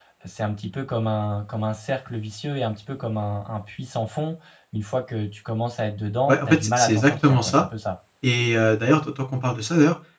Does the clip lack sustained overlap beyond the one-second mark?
No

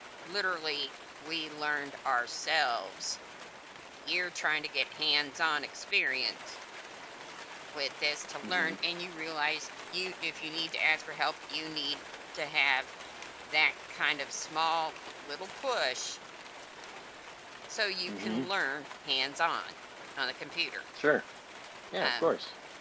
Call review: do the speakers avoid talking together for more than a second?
Yes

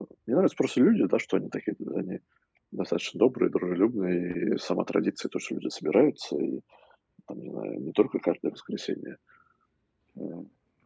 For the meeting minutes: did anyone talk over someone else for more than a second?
No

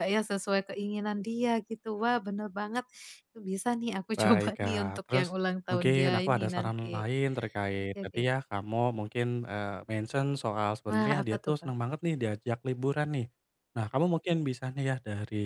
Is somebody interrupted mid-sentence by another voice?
Yes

